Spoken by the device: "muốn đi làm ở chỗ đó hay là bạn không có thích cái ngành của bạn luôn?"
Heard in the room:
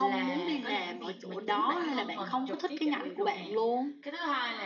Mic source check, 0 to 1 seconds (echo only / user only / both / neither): both